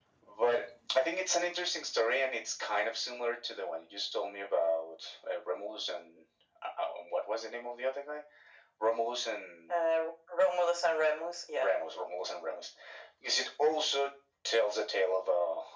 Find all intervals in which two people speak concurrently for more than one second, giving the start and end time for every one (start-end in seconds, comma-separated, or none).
none